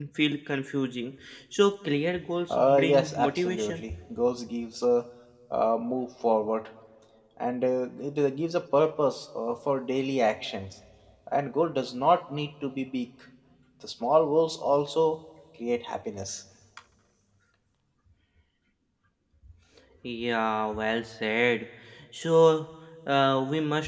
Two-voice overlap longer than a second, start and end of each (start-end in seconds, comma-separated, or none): 2.5-3.8